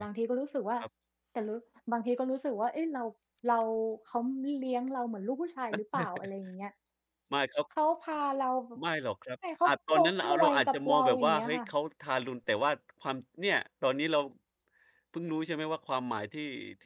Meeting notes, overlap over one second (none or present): present